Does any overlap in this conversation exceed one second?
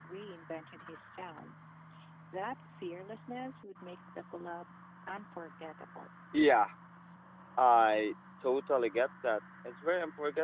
No

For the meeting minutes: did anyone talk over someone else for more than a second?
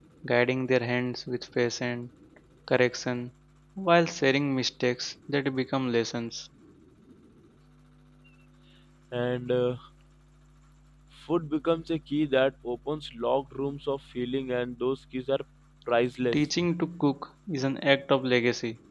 No

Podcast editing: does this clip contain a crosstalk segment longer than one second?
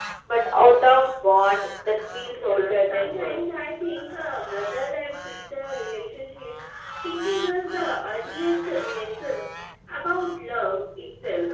Yes, from 2.3 s

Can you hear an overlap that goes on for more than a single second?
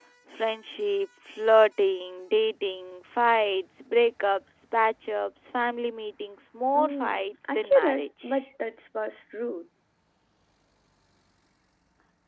Yes, from 6.8 s

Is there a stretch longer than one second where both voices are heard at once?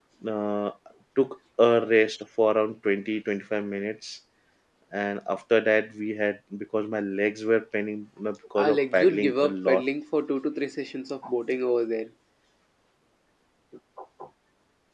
Yes, from 8.6 s

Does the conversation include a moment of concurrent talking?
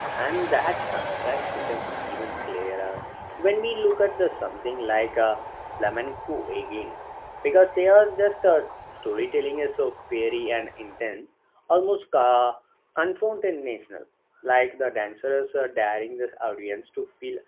No

